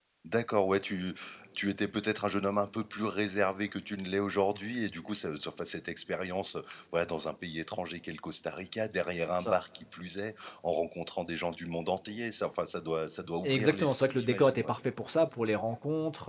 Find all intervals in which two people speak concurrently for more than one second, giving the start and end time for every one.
13.4-14.7

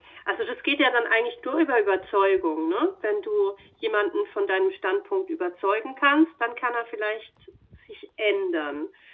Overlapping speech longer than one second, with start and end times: none

